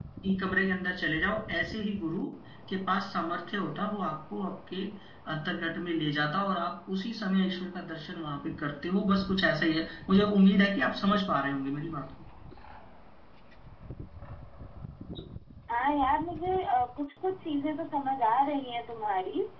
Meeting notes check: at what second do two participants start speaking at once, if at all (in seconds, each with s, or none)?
none